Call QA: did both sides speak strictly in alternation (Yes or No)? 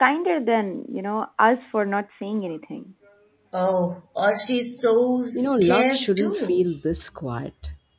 No